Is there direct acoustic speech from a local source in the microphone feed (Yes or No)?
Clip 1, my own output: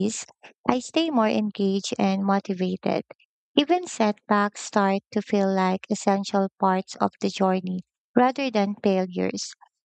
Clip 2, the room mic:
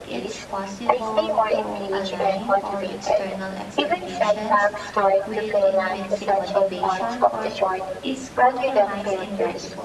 Yes